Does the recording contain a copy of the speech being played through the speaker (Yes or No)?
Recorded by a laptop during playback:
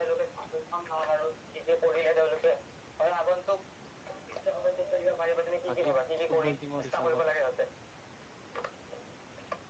Yes